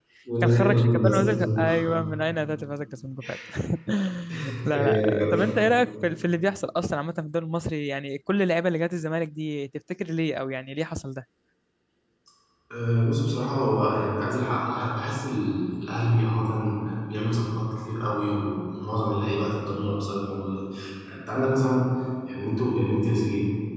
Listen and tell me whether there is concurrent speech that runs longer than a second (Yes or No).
Yes